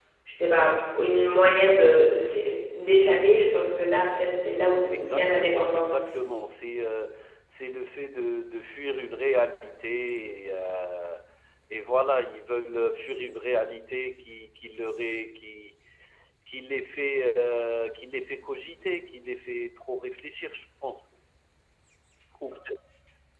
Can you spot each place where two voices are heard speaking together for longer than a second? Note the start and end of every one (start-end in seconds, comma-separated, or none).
4.9-6.1